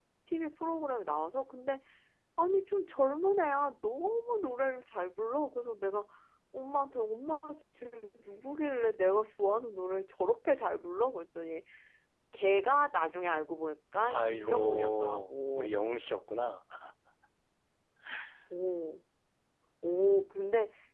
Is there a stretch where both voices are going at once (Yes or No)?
Yes